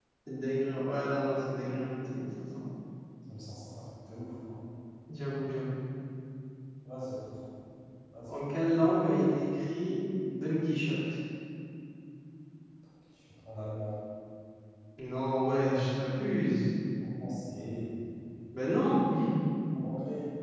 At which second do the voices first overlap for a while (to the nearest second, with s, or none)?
none